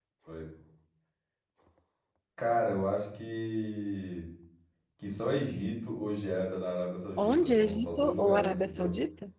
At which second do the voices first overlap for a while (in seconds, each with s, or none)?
7.2 s